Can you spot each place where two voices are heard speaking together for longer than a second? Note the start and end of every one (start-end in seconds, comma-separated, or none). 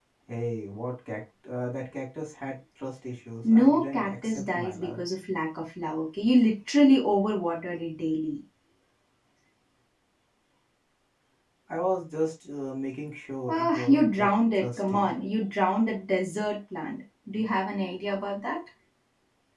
3.5-5.0, 13.5-15.1